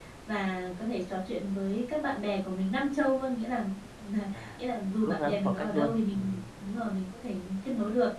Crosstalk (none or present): present